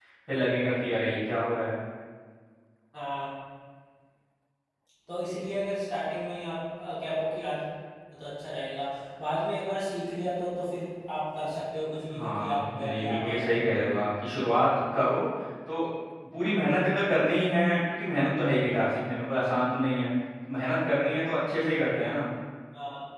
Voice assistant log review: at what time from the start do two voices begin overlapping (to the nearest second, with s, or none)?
12 s